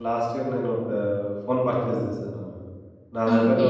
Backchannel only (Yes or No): Yes